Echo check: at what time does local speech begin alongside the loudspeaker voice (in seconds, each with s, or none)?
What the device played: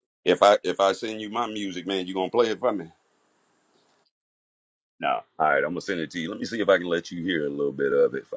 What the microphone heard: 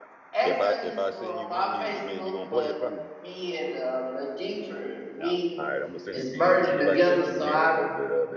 0.3 s